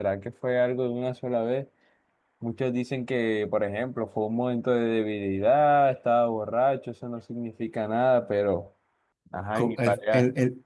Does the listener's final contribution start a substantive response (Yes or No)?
Yes